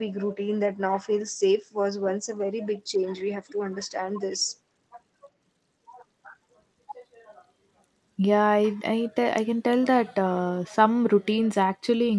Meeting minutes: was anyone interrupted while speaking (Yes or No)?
No